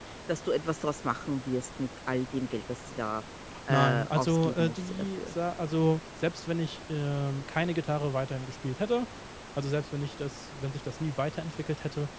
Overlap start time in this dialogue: 3.7 s

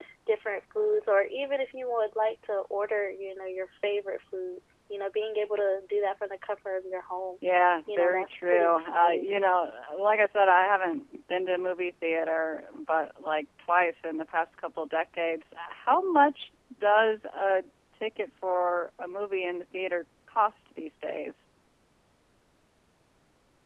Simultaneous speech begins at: 7.9 s

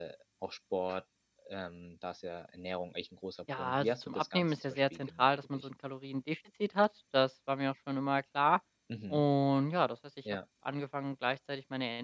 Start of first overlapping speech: 3.5 s

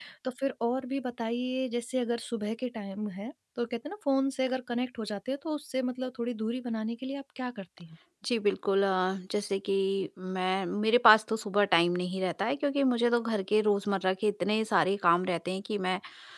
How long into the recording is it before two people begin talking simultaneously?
none

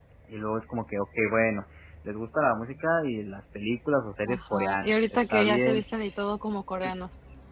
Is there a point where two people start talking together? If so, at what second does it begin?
4.3 s

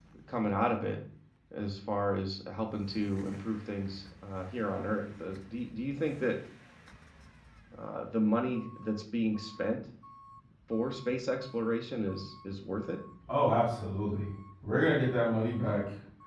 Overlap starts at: none

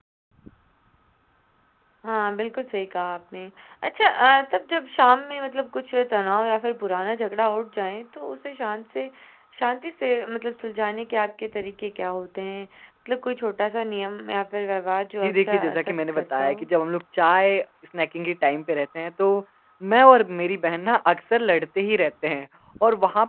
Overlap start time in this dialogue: 15.2 s

